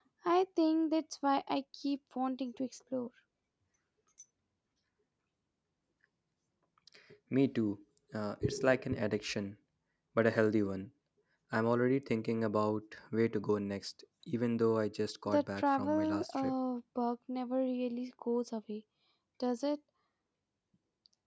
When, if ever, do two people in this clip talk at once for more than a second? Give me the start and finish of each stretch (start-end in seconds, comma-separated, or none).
15.3-16.5